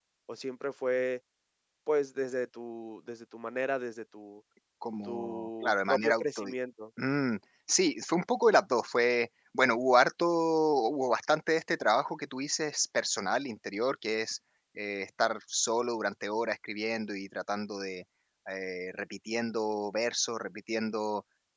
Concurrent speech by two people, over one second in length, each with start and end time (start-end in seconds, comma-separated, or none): 5.0-6.5